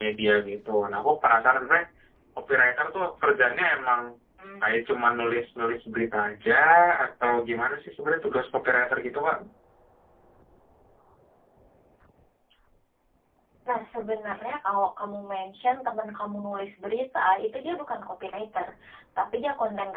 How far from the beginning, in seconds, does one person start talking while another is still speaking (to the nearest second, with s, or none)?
none